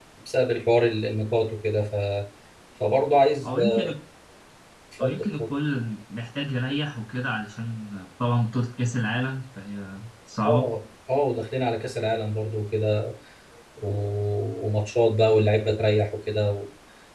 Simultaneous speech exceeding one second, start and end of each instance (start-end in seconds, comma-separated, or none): none